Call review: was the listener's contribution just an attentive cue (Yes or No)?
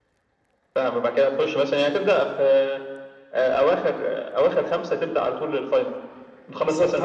No